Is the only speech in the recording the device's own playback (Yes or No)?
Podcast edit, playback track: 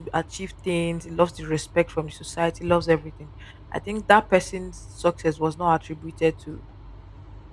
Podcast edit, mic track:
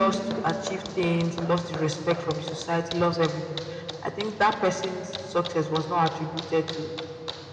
Yes